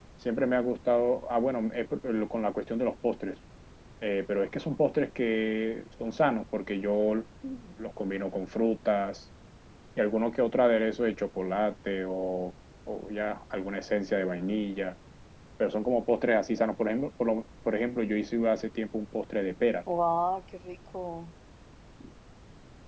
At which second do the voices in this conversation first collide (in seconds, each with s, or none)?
none